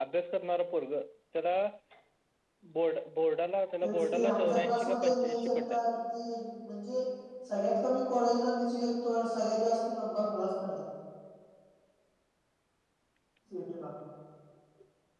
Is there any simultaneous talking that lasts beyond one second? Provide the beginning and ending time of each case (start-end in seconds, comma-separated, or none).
3.8-5.8